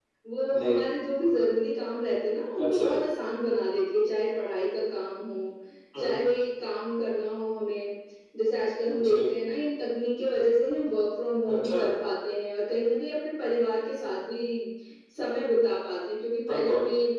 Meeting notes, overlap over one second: none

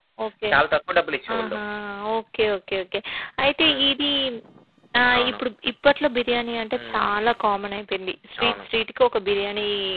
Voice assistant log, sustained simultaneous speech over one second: none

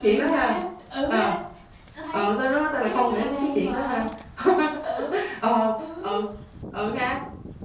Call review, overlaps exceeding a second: present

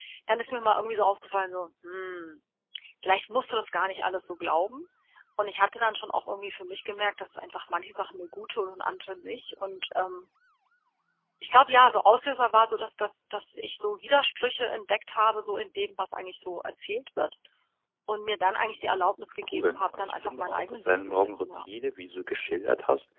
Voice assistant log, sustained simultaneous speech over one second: present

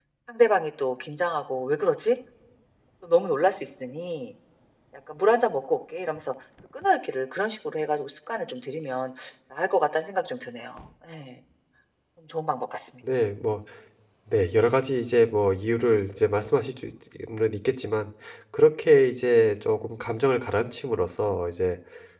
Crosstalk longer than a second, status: none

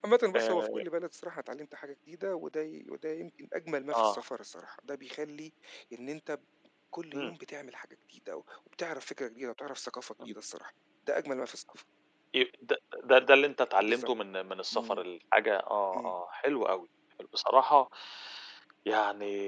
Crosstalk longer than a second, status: none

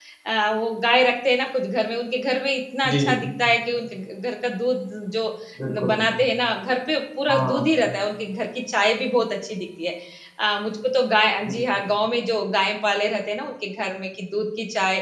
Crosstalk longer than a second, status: none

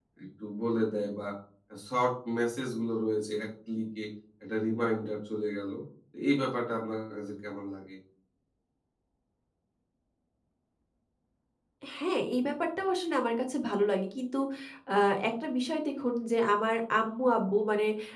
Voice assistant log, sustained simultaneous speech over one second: none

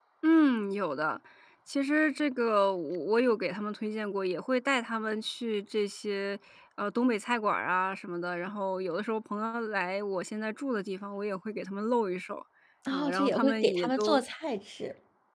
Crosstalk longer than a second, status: present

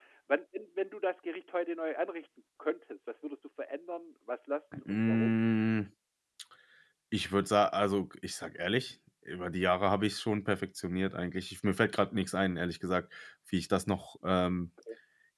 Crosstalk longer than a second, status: none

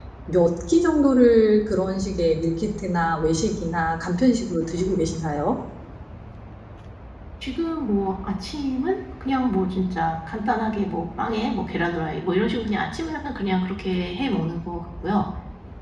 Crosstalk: none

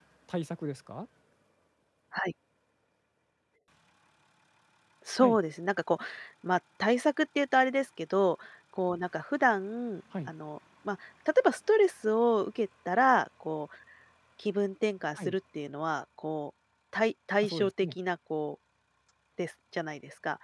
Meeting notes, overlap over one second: none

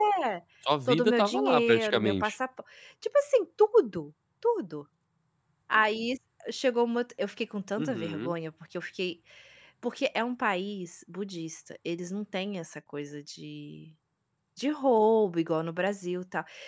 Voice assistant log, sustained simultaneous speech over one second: present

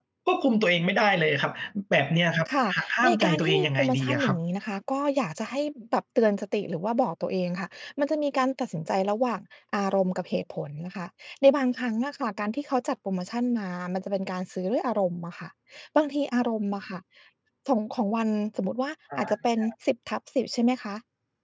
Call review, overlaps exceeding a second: present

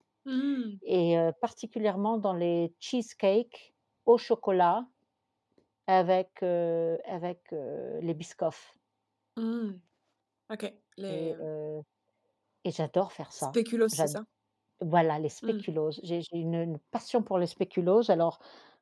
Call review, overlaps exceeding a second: none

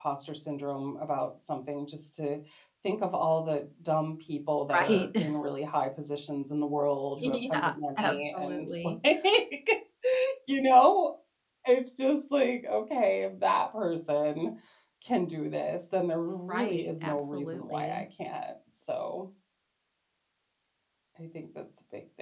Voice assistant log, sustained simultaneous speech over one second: present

